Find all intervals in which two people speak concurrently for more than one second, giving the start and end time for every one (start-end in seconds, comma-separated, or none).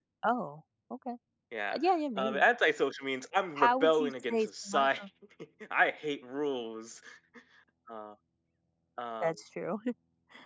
3.5-5.0